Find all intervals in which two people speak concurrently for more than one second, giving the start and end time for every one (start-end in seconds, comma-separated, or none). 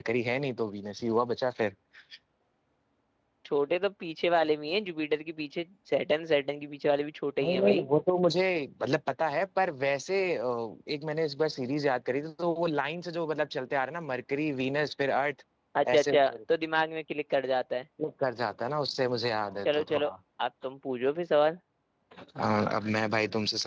none